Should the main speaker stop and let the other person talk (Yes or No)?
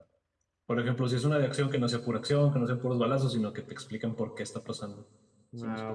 Yes